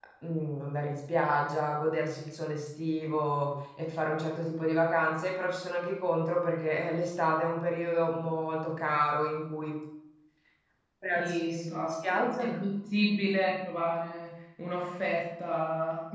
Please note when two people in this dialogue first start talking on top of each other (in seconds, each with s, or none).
11.2 s